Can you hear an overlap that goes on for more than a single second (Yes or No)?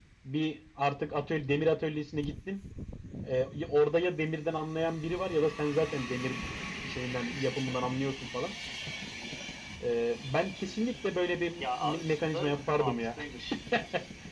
Yes